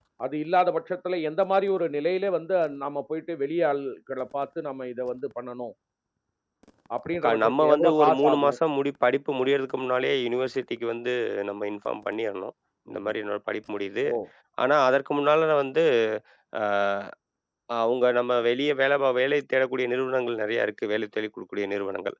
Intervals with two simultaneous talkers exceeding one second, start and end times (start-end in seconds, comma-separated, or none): 7.2-8.6